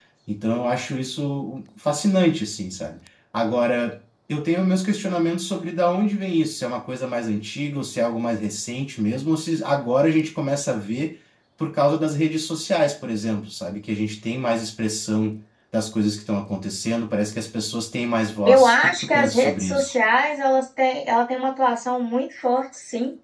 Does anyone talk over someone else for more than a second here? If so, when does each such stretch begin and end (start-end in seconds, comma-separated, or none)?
18.4-19.9